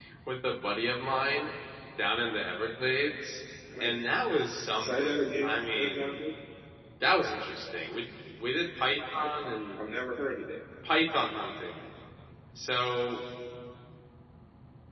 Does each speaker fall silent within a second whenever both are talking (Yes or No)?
No